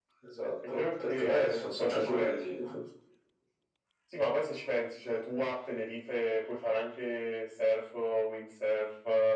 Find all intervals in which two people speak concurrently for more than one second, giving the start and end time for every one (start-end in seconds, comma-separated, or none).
0.7-2.5